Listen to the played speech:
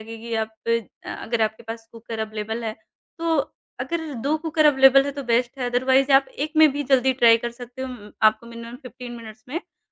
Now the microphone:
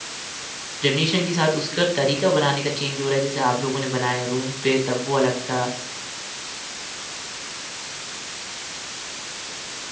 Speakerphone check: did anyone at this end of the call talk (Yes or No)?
Yes